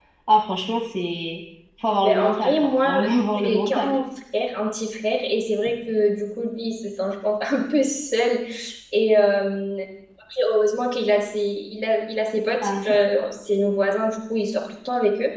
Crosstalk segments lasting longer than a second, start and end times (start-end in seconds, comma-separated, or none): 2.0-4.0